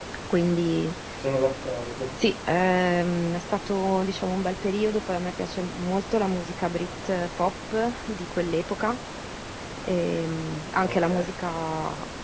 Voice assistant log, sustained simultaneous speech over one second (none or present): none